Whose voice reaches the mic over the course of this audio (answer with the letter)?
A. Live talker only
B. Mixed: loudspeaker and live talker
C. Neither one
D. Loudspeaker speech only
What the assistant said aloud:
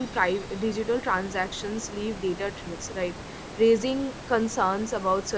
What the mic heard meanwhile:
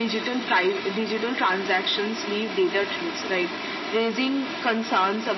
D